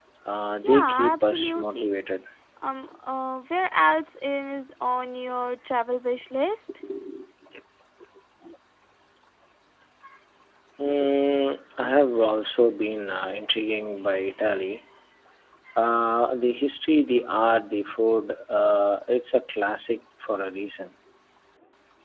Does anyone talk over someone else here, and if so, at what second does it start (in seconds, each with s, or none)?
0.6 s